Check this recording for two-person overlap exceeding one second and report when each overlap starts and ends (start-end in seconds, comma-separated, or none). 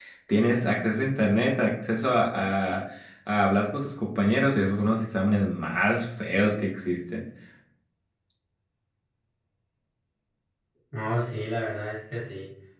none